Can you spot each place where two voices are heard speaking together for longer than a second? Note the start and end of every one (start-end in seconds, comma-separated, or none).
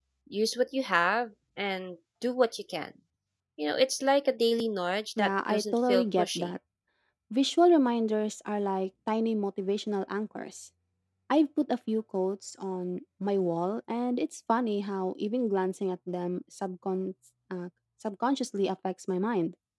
5.2-6.5